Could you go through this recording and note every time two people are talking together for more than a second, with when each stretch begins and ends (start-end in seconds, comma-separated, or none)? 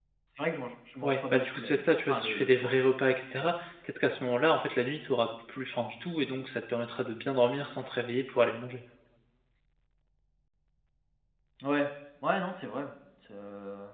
1.0-2.7